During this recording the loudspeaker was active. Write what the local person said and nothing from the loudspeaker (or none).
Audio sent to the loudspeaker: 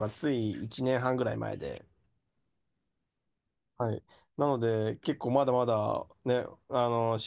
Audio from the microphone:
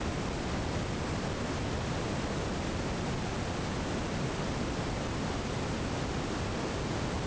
none